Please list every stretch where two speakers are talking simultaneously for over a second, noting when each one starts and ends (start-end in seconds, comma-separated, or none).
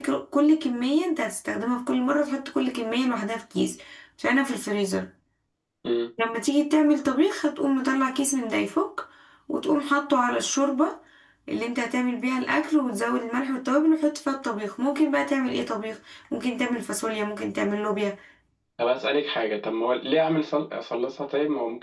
none